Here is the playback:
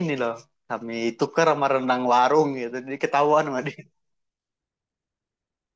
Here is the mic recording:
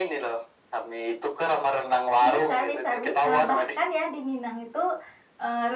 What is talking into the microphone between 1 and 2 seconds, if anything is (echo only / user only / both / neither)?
echo only